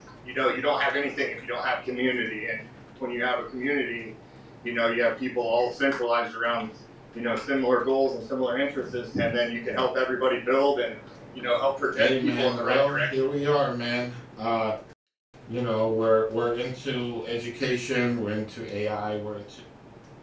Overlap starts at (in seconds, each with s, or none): 12.0 s